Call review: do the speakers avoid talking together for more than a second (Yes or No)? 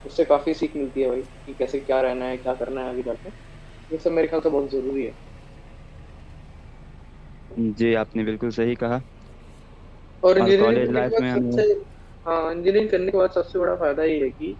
No